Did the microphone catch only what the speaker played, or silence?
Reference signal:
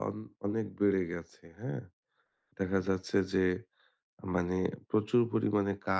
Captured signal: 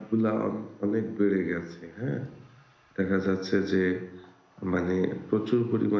Yes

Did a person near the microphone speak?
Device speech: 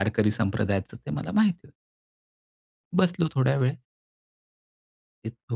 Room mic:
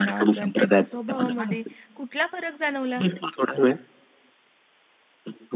Yes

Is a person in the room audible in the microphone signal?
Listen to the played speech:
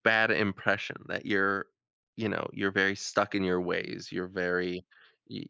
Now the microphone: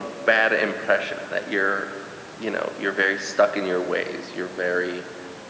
No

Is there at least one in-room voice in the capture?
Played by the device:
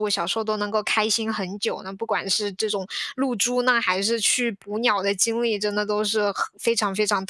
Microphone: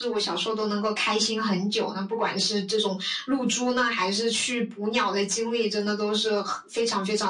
No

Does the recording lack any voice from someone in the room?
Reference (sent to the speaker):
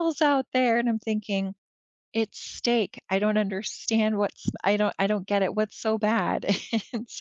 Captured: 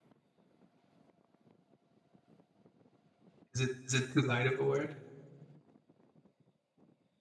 No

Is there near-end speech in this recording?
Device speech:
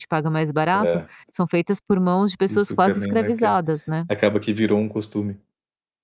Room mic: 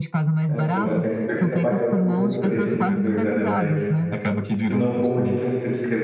Yes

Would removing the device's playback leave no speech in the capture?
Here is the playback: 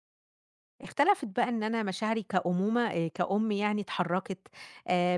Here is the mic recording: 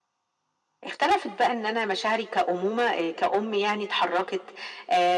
Yes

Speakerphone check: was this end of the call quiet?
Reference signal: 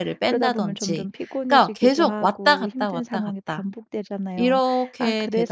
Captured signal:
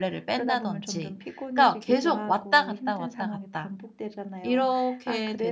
Yes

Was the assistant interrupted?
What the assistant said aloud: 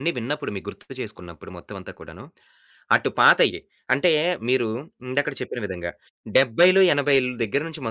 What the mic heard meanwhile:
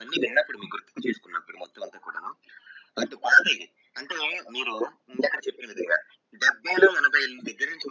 No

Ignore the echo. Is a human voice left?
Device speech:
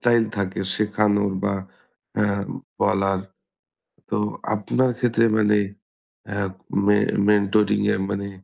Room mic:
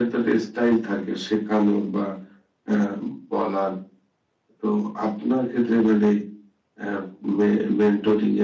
No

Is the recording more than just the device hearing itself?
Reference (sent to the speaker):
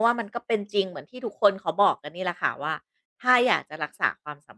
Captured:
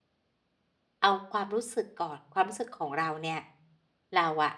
Yes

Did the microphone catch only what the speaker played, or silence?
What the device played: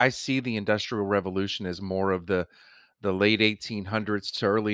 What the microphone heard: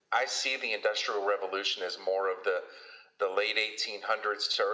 Yes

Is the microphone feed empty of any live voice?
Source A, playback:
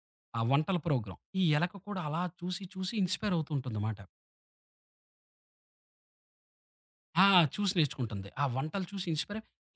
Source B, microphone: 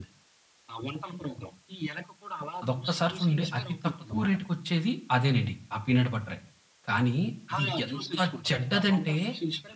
No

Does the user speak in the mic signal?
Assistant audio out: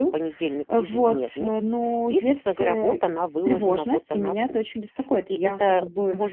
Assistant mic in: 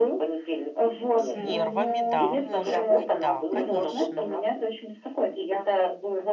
Yes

